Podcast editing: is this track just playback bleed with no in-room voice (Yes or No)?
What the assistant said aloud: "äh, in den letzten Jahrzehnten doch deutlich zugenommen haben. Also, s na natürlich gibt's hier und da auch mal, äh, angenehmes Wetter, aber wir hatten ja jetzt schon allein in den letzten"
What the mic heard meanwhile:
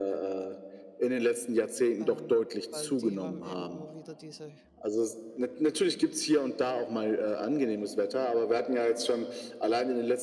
No